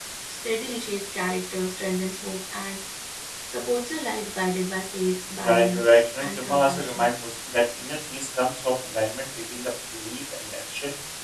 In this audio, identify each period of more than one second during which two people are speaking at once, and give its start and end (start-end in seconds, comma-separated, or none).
5.4-7.1